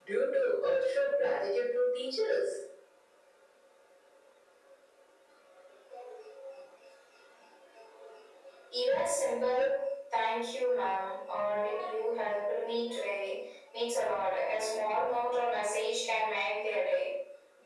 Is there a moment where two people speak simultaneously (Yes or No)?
No